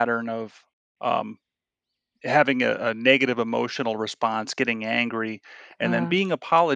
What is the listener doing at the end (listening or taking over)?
listening